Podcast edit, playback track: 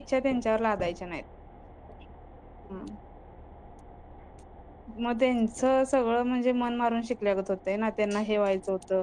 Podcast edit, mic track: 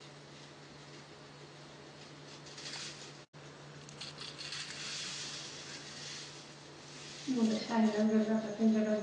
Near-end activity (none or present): present